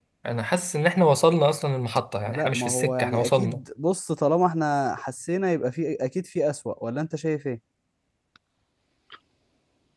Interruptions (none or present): present